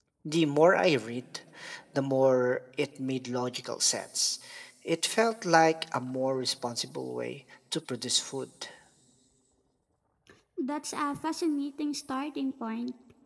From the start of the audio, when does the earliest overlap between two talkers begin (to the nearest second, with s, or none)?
none